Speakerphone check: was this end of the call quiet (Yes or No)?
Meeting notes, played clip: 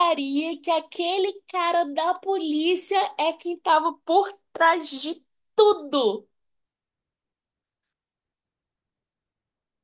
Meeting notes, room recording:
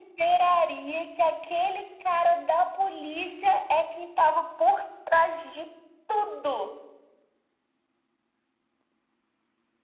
Yes